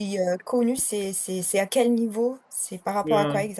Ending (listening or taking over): taking over